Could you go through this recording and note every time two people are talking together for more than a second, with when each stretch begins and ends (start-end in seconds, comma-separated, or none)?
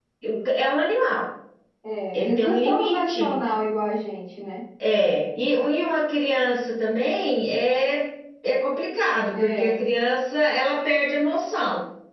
2.1-3.3